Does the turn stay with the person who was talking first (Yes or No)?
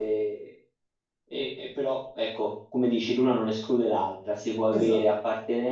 Yes